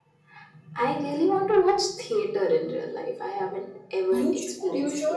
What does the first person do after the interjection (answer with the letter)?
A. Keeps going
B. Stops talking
B